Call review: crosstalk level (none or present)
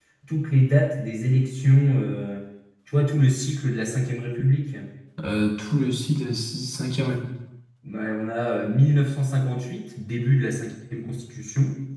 none